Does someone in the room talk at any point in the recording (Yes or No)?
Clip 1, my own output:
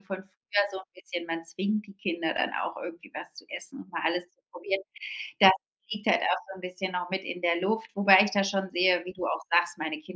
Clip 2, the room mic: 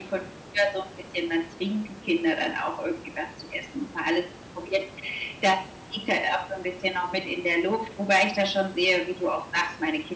No